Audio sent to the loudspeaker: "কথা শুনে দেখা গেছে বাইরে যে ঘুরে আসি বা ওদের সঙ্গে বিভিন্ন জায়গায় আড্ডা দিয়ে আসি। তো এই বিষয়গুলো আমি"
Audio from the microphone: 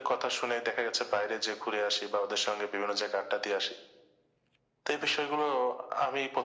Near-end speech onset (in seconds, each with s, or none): none